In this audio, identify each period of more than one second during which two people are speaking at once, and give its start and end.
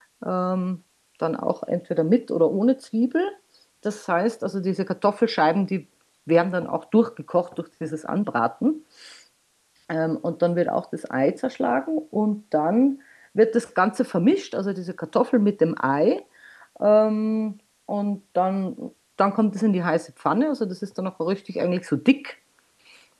none

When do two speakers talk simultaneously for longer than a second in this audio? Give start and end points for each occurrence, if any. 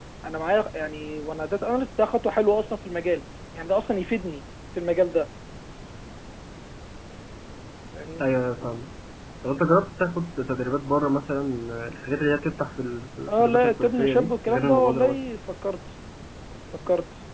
13.3-15.2

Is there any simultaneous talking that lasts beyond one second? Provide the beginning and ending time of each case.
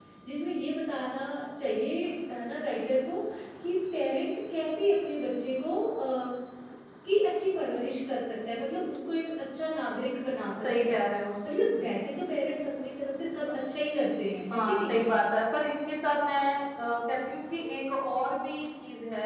none

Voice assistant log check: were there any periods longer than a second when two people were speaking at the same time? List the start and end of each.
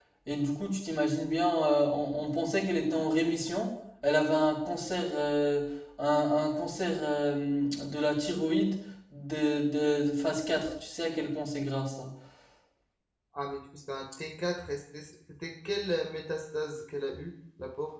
none

